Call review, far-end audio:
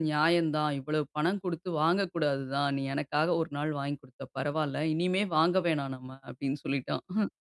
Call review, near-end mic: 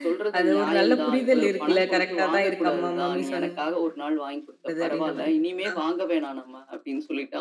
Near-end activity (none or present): present